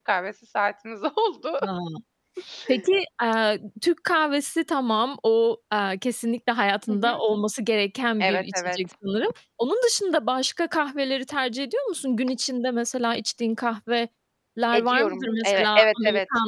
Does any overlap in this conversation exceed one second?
Yes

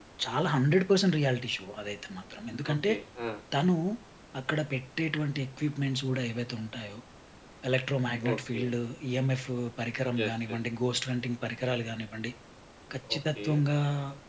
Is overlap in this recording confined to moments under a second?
Yes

